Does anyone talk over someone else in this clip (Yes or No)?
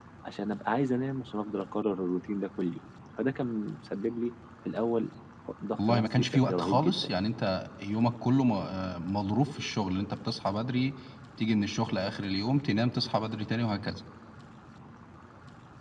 Yes